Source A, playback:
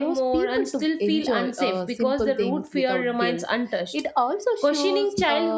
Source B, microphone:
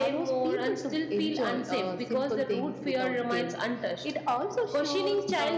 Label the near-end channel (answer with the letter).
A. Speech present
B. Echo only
B